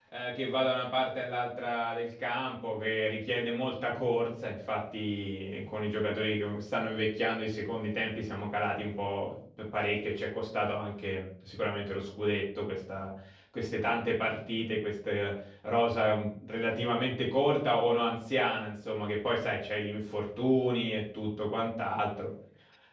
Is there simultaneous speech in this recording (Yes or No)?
No